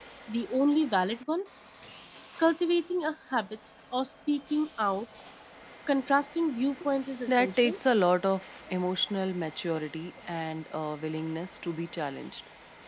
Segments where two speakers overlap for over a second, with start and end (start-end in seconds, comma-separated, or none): none